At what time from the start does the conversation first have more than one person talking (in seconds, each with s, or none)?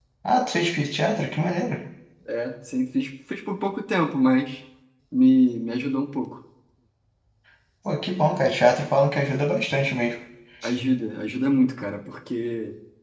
none